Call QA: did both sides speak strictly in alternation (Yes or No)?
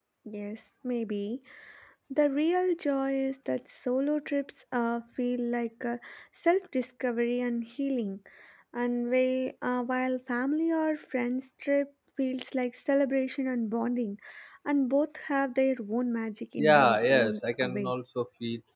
No